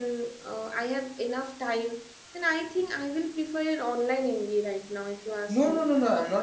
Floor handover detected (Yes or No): Yes